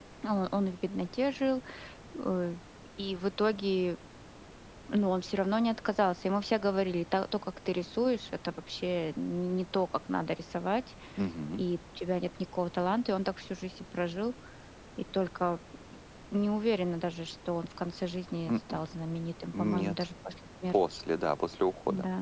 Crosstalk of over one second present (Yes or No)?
No